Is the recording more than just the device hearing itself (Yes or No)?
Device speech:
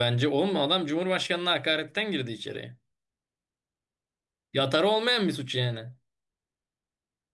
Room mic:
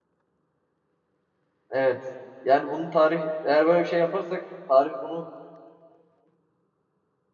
Yes